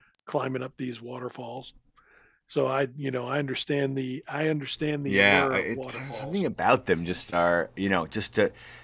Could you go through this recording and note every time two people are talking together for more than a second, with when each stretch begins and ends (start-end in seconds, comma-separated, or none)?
5.1-6.4